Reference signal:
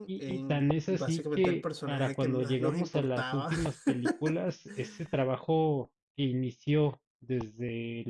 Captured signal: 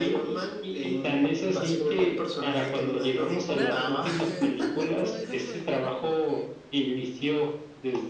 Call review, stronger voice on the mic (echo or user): echo